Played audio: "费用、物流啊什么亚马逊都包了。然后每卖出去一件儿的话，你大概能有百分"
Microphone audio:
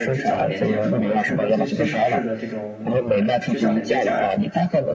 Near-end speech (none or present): present